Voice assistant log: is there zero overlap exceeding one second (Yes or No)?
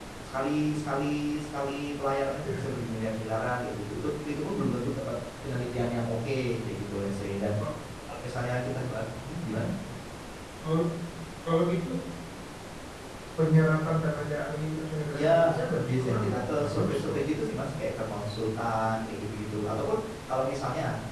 No